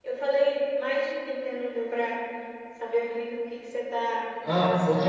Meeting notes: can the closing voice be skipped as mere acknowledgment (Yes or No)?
No